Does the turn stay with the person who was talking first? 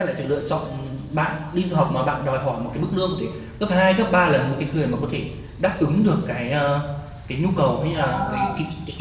Yes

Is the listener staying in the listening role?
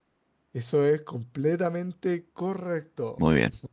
Yes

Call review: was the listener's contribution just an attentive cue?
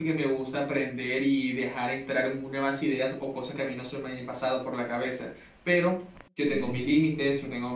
Yes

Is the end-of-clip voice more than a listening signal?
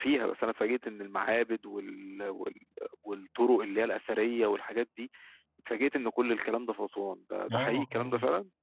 Yes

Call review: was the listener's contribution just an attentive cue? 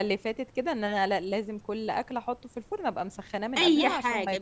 No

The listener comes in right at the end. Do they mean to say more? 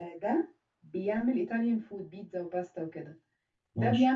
No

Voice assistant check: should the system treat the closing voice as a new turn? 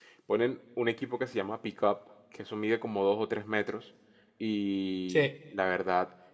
No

